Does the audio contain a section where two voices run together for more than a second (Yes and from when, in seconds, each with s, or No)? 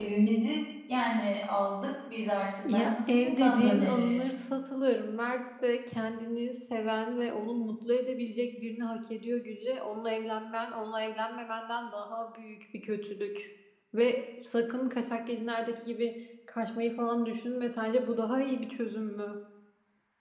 Yes, from 2.6 s